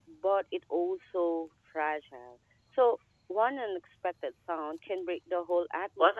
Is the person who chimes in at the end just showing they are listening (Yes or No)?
No